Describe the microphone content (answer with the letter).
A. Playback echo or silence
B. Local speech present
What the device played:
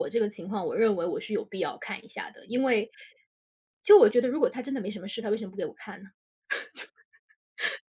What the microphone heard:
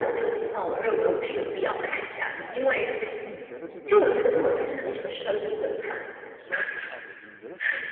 B